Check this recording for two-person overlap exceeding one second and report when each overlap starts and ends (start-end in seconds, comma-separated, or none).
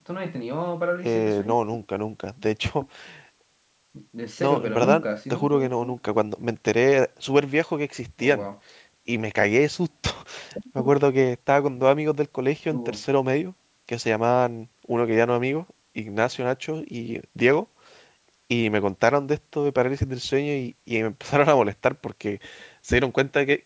4.4-5.9